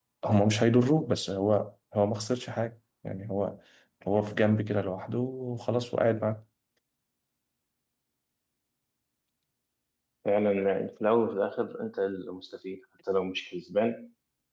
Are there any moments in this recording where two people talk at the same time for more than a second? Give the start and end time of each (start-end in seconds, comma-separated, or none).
none